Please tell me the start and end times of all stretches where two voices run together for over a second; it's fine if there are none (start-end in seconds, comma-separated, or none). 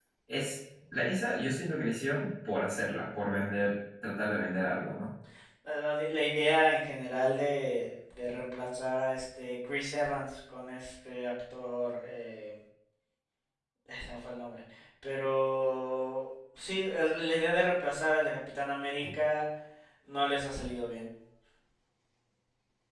none